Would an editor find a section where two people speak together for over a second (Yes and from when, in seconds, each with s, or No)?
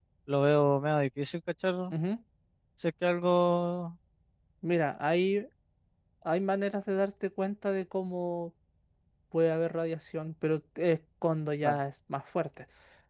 No